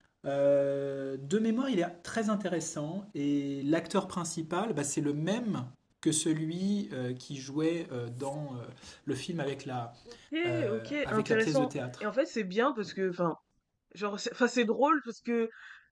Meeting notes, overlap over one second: present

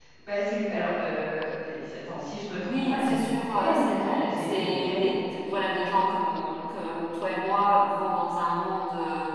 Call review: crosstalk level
present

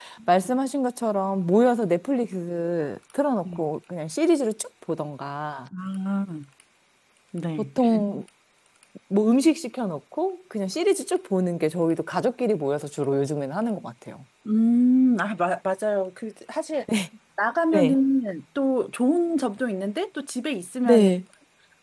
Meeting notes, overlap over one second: none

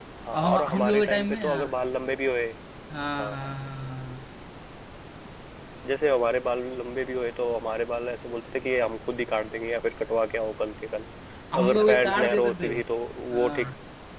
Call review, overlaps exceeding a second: present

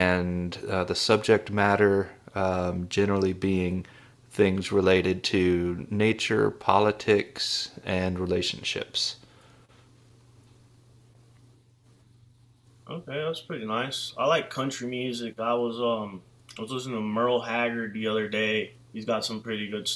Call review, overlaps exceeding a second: none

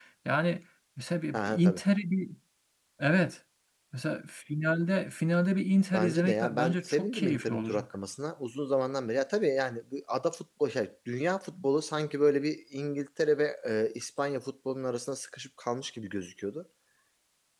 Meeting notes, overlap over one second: present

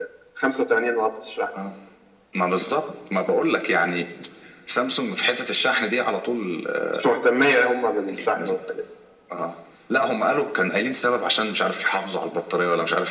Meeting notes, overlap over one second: none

